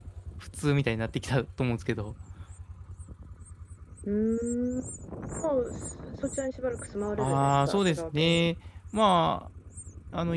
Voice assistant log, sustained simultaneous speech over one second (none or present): present